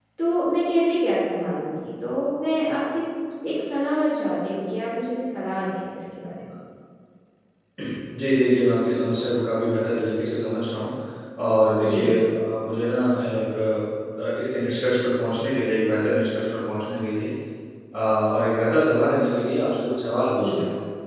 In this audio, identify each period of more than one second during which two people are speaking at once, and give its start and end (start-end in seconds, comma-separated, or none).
none